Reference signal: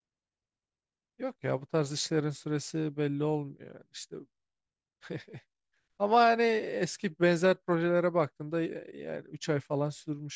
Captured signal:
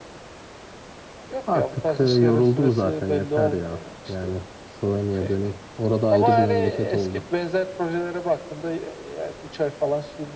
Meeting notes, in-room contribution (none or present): present